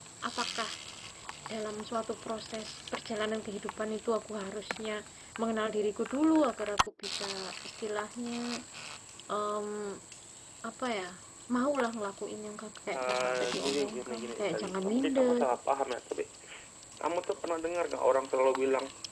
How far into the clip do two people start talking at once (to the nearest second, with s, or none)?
13 s